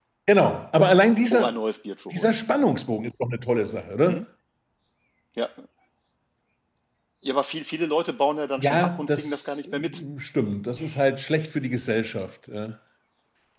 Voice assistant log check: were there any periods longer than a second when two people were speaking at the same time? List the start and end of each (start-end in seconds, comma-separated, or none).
8.6-9.9